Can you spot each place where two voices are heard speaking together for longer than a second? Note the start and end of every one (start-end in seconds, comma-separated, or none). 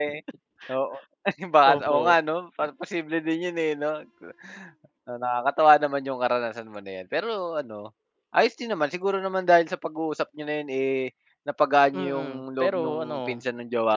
12.0-13.4